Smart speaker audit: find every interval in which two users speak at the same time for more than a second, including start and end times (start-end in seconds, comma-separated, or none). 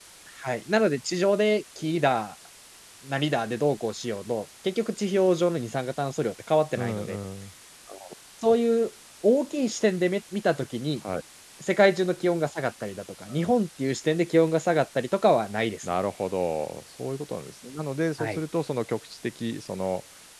none